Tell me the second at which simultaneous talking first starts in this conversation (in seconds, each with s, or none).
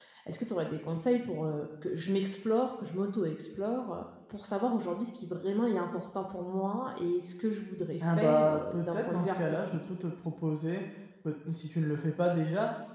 8.0 s